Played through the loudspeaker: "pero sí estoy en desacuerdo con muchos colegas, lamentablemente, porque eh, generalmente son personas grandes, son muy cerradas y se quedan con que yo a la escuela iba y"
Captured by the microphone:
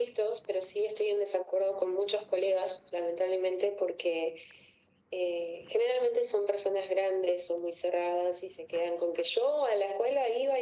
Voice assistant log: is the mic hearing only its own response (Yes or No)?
Yes